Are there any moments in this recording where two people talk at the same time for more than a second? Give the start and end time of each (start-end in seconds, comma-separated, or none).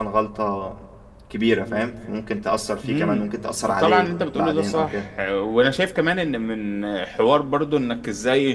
3.8-5.1